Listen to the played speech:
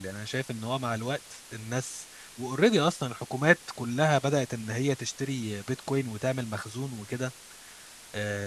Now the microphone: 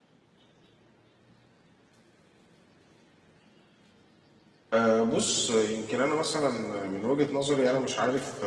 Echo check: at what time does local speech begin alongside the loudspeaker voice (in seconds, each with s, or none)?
4.7 s